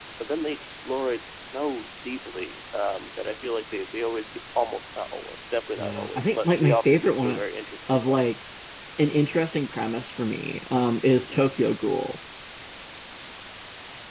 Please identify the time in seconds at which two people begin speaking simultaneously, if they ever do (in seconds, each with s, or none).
5.8 s